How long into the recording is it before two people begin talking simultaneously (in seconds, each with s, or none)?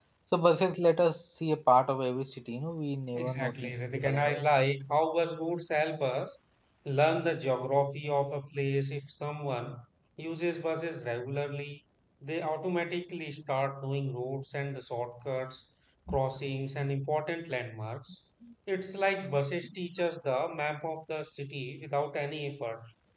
3.1 s